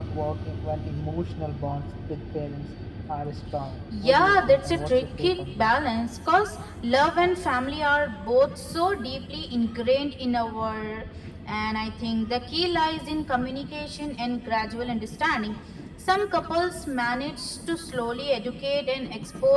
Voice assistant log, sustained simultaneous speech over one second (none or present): present